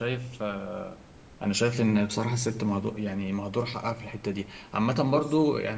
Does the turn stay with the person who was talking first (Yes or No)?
Yes